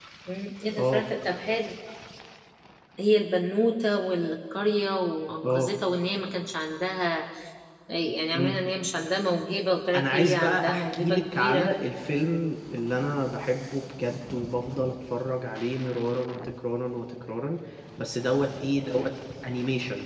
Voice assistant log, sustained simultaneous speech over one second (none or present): present